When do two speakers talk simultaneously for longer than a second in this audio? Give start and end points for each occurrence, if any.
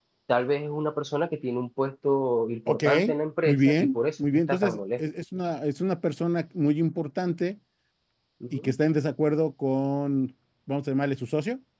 3.4-5.0

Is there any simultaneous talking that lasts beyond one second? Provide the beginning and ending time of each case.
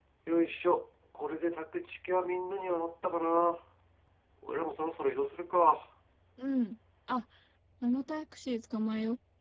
none

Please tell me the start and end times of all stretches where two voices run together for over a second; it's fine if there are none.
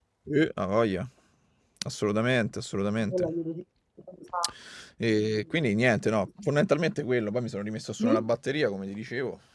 none

